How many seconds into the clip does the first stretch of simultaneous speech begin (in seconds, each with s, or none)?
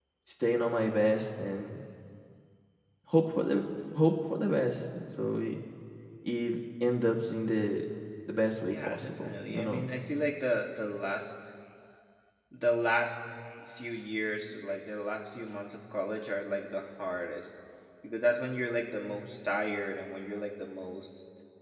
8.6 s